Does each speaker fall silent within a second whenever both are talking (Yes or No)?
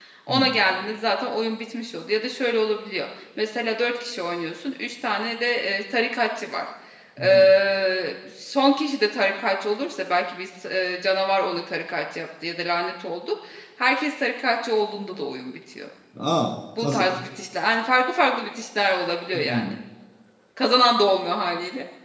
Yes